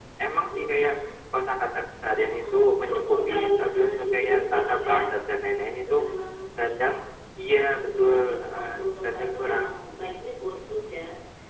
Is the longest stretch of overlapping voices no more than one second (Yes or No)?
No